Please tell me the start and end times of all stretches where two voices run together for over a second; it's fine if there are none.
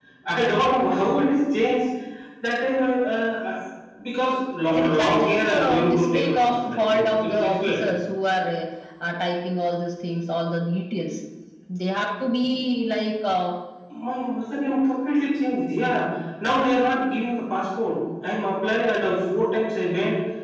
4.7-7.8

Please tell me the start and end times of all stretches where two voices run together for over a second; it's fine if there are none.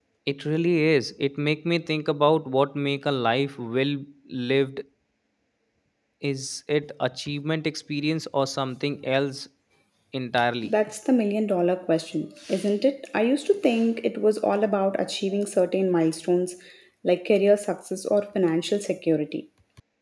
none

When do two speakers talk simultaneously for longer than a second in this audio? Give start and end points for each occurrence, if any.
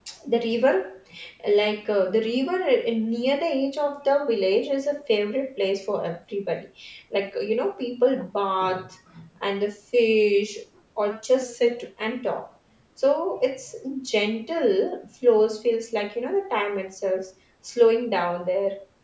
none

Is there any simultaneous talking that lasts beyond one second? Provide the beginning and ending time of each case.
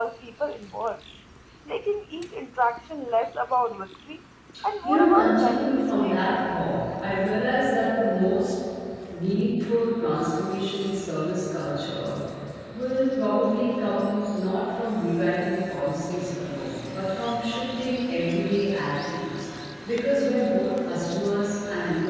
4.8-6.3

